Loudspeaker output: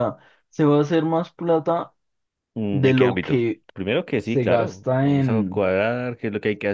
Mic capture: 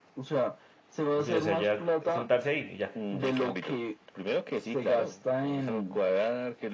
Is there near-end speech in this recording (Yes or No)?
Yes